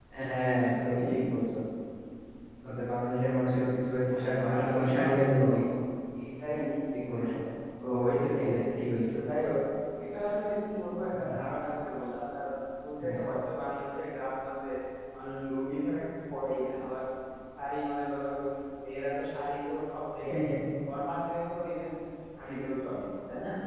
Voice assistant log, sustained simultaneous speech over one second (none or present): present